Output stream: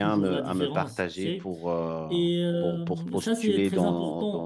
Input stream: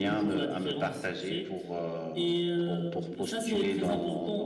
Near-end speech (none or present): none